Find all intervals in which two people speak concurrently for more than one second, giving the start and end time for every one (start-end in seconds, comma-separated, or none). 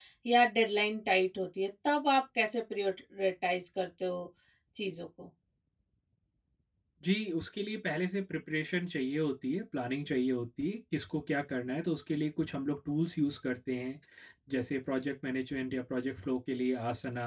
none